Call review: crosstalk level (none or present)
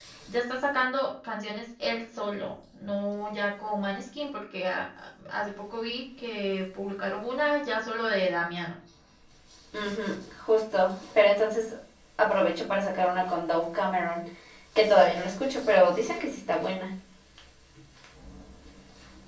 none